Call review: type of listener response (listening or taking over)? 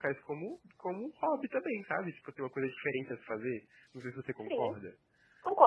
taking over